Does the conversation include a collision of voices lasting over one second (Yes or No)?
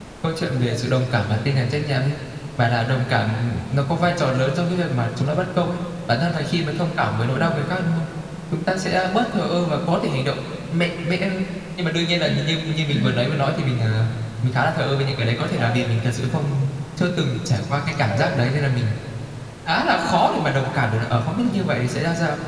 No